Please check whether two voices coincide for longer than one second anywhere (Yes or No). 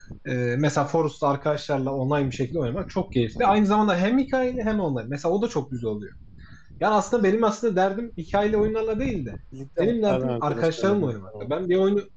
Yes